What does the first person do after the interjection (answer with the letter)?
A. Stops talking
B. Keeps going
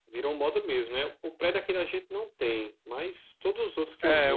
A